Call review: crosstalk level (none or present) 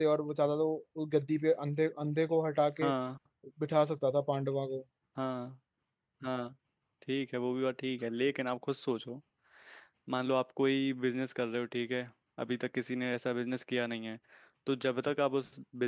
none